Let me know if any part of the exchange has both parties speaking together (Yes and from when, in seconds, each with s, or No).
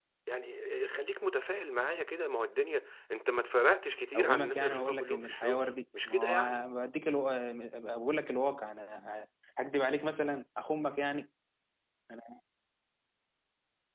Yes, from 4.1 s